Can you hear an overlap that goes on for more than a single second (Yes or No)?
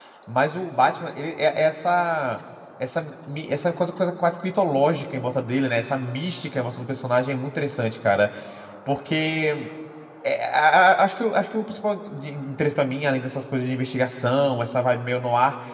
No